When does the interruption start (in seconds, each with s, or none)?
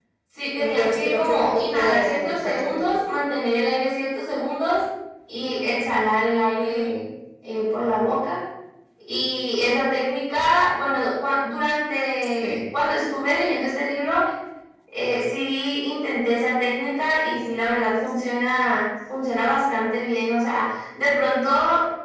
0.6 s